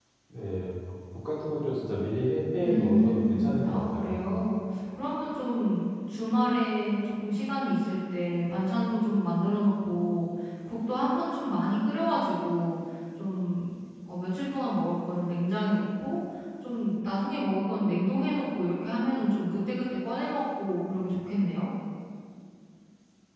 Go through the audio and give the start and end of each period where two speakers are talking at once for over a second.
2.6-4.2

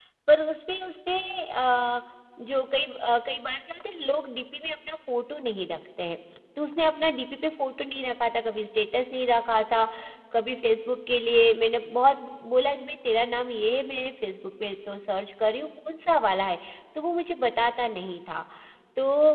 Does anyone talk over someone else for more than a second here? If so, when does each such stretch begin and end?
none

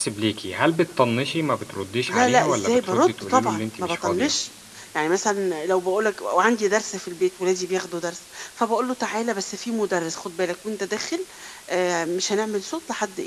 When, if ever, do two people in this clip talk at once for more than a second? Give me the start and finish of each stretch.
2.1-4.3

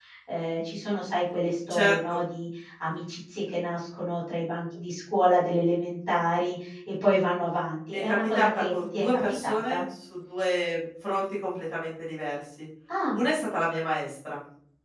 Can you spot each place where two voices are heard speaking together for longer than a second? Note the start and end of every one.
7.9-9.8

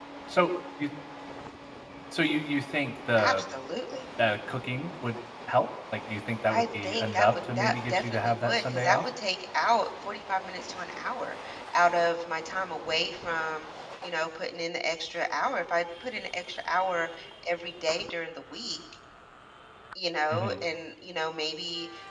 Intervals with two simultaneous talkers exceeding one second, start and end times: 6.5-9.0

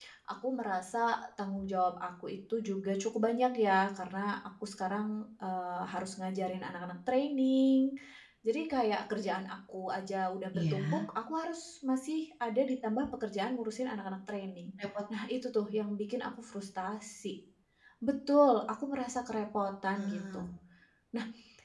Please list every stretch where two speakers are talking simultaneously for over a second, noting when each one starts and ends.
none

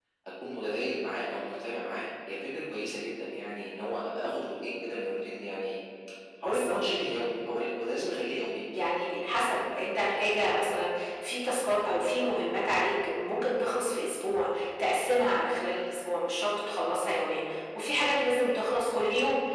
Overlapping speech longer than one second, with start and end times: none

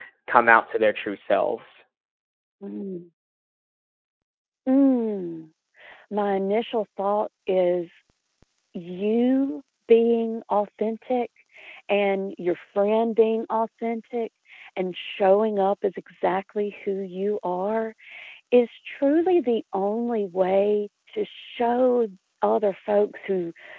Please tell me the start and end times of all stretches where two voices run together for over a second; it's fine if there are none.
none

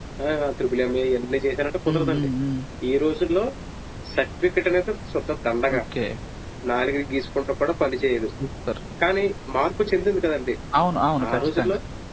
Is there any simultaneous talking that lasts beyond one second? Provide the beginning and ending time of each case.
none

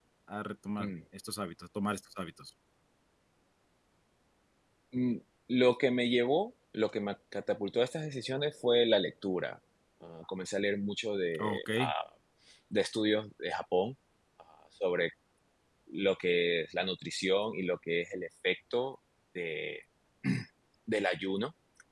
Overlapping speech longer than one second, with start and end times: none

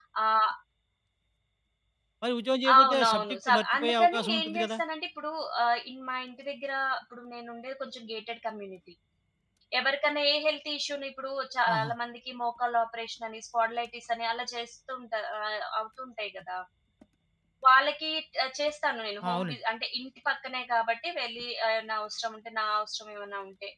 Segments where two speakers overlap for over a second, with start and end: 2.8-4.7

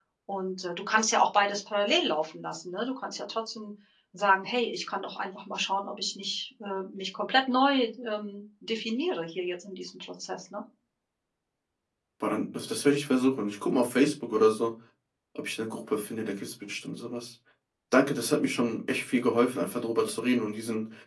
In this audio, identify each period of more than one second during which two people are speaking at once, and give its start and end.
none

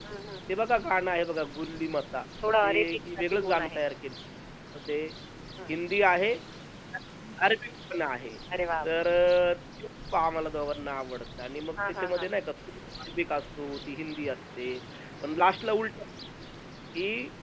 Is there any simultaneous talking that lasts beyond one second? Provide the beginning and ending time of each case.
2.6-3.8

